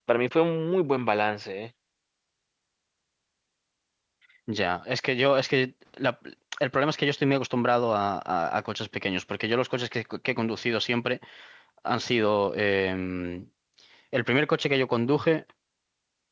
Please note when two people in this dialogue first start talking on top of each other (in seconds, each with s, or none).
none